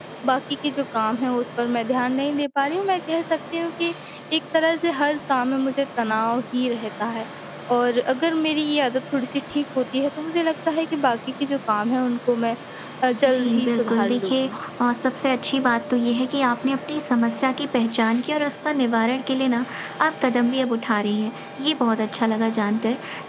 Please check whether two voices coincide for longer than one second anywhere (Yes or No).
Yes